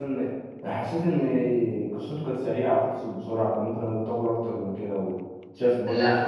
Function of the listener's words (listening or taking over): taking over